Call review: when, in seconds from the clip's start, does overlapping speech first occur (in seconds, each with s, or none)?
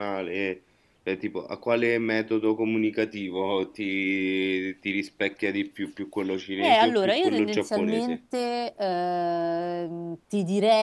6.6 s